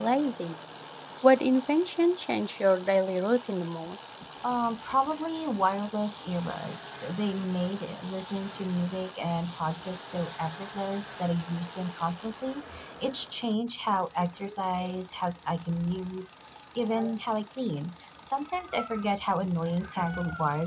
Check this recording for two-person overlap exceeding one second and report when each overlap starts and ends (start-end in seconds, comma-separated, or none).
none